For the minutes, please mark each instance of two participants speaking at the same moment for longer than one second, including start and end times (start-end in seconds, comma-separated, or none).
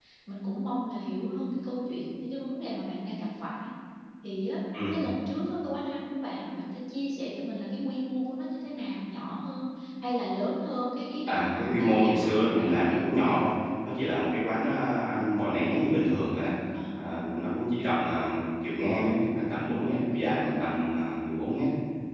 11.3-13.0